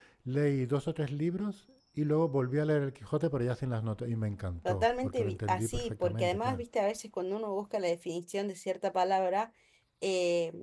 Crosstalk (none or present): present